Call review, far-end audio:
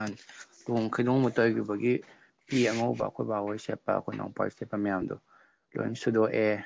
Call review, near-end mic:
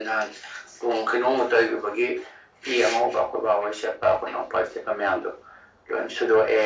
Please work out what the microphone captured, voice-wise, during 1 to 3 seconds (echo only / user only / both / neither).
echo only